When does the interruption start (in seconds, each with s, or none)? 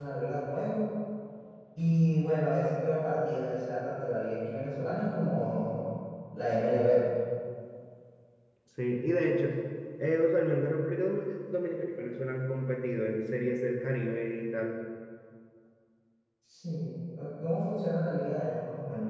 none